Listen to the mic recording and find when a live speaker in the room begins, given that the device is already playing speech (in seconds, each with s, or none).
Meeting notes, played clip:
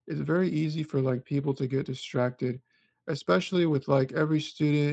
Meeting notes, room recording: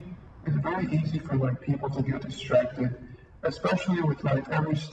none